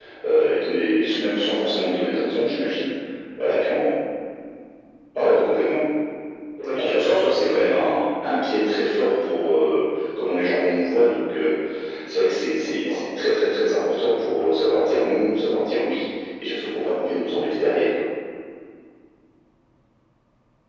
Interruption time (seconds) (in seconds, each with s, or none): 6.7 s